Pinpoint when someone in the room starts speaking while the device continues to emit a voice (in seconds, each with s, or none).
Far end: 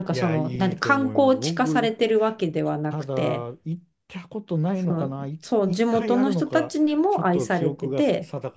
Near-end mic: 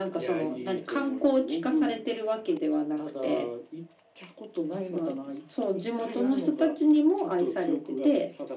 none